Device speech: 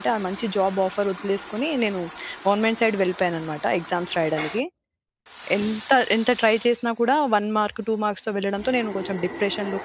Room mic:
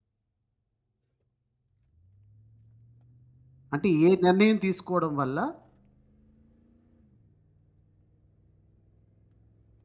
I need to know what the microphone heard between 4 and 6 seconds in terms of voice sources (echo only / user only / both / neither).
user only